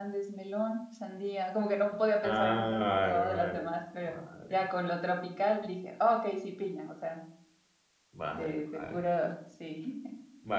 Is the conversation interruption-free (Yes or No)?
No